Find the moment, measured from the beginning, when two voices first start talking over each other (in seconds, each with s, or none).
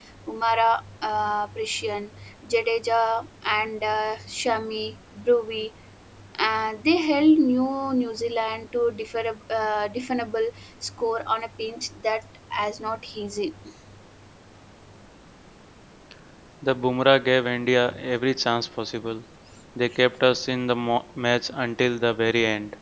none